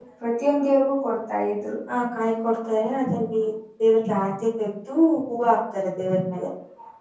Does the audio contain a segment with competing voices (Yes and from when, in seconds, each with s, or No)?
No